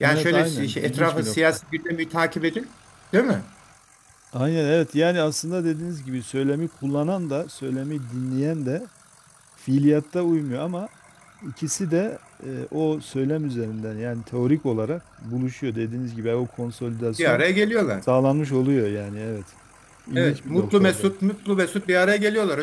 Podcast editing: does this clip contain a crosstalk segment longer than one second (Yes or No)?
Yes